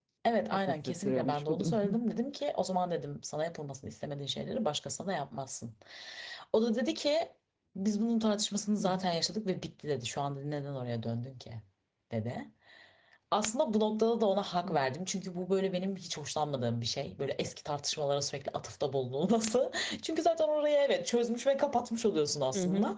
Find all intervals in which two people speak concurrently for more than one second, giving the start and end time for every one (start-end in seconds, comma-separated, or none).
0.5-2.0